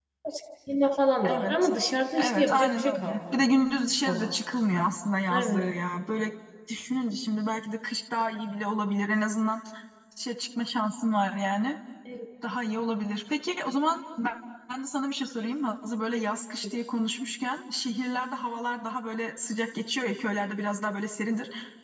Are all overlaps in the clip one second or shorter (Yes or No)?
No